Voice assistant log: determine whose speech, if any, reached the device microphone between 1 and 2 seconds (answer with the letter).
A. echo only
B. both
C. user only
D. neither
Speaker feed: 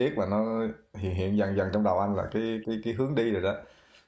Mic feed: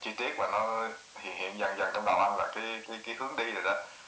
A